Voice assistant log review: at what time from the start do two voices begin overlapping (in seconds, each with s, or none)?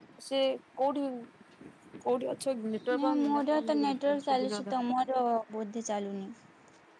3.0 s